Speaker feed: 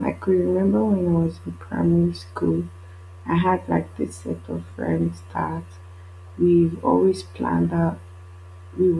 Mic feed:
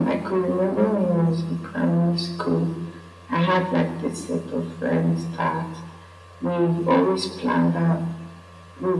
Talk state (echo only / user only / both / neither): echo only